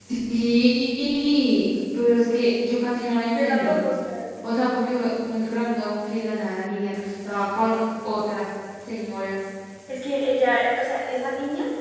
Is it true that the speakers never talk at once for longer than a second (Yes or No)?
Yes